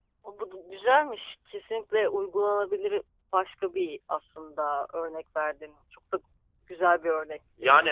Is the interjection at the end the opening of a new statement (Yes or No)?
Yes